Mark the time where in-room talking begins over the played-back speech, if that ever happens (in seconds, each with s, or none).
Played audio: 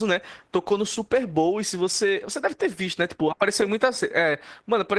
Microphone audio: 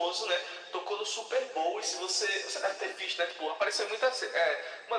none